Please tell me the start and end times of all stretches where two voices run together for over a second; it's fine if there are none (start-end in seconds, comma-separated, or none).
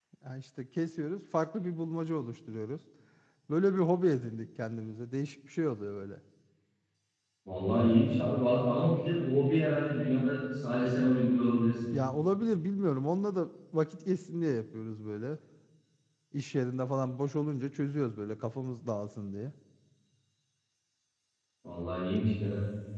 none